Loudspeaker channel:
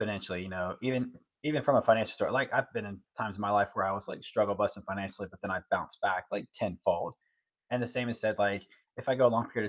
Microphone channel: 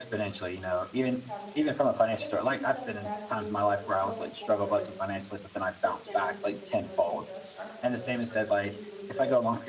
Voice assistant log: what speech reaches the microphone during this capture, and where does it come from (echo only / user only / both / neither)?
both